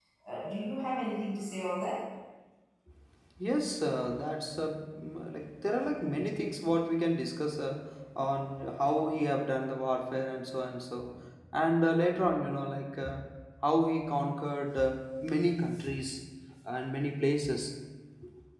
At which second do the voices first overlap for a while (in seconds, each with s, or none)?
none